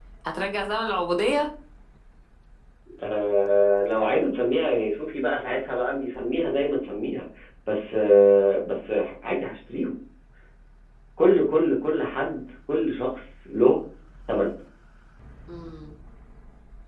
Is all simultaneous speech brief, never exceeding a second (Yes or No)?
Yes